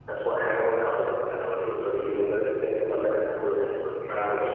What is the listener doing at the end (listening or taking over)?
taking over